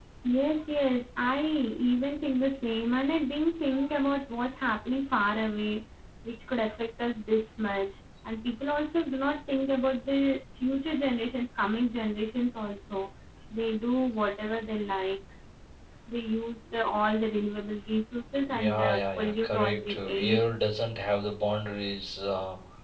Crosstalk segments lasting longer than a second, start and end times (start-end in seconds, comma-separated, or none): 18.5-20.4